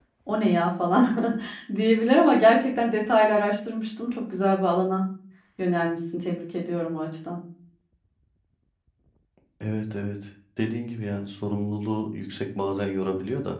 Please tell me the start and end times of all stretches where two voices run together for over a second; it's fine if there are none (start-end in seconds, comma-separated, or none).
none